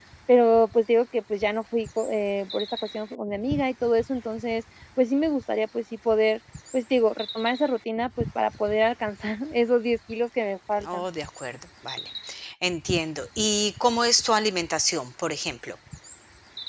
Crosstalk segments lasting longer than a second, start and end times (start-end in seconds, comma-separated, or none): none